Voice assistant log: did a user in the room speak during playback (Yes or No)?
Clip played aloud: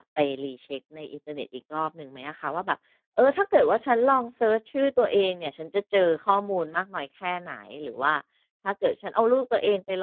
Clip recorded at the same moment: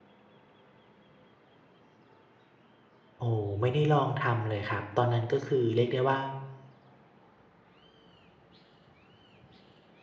Yes